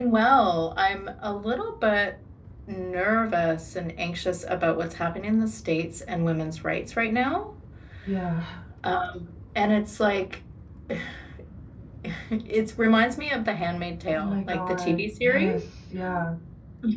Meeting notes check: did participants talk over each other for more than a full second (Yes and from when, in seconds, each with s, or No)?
Yes, from 14.1 s